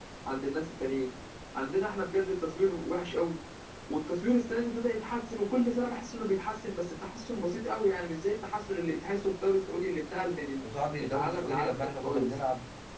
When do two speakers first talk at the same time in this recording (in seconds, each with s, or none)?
11.0 s